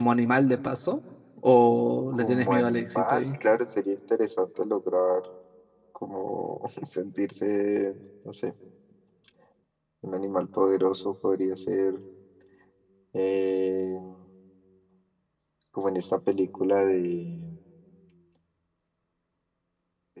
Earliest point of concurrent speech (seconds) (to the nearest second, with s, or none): 2 s